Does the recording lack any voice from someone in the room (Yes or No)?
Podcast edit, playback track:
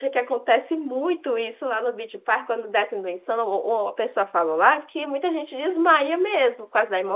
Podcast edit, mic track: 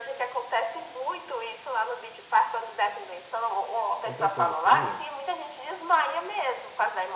No